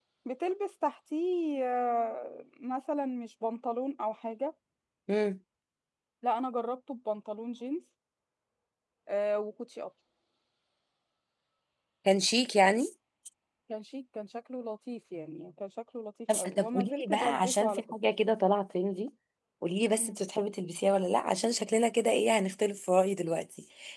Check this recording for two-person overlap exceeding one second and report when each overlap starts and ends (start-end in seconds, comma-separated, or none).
16.3-17.8